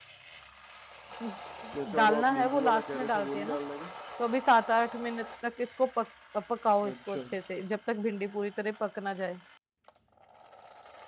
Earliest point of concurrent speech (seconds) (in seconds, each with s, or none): 2.0 s